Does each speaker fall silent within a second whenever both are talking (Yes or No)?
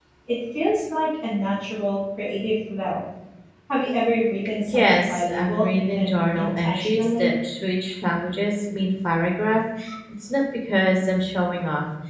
No